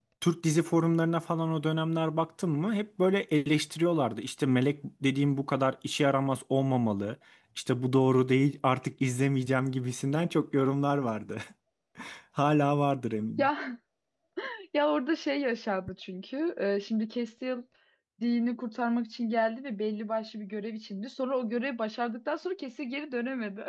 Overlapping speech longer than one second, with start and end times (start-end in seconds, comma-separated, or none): none